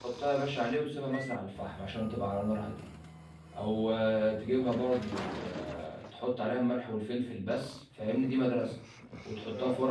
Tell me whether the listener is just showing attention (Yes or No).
Yes